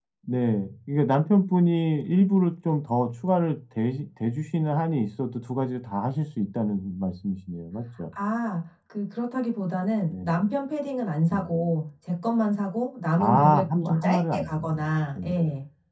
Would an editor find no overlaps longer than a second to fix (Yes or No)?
No